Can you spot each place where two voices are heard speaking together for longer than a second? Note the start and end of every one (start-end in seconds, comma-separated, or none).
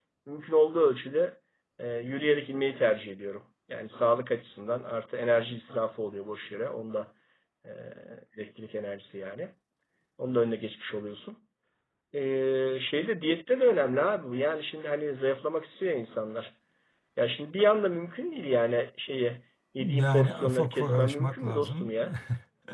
19.8-21.9